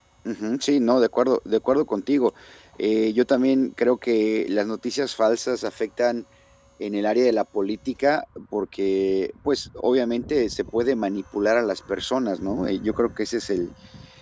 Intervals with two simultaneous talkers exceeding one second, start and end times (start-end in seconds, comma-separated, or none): none